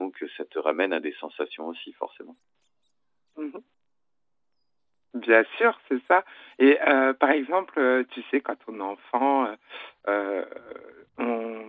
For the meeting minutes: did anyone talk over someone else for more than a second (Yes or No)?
No